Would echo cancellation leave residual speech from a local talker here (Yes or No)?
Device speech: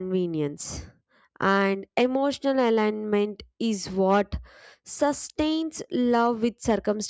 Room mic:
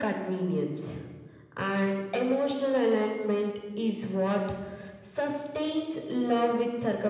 No